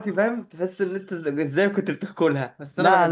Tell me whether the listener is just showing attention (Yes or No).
No